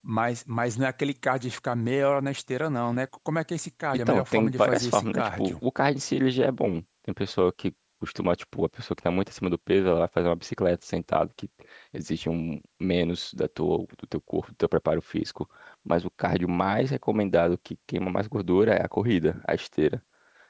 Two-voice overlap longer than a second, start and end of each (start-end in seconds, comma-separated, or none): 4.1-5.5